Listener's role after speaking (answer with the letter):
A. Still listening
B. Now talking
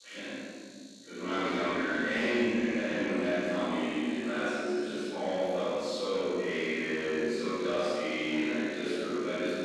A